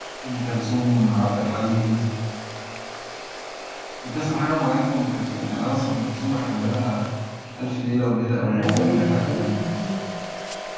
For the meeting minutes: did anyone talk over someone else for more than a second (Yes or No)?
Yes